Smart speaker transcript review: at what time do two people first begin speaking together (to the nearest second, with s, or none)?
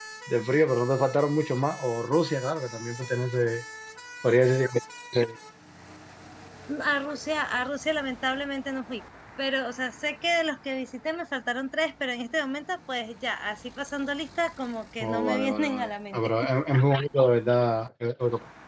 15 s